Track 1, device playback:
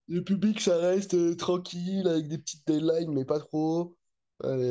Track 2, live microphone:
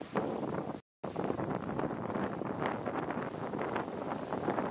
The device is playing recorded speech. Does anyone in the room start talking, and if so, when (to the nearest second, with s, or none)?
none